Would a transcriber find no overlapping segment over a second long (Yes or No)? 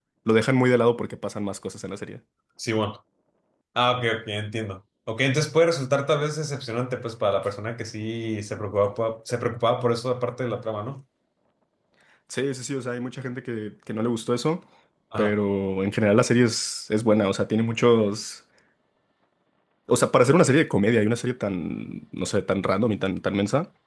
Yes